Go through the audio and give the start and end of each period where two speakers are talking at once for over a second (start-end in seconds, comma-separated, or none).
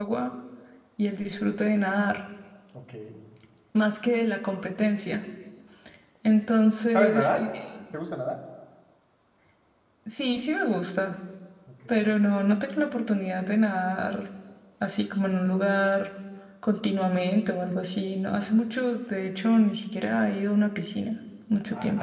none